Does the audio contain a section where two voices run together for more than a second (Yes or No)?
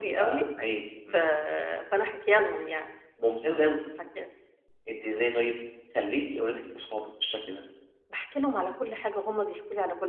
No